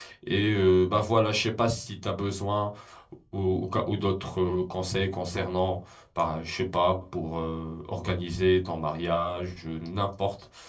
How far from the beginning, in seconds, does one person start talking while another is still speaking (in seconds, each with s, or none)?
none